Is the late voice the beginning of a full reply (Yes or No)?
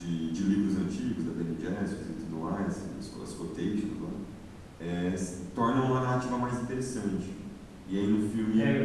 No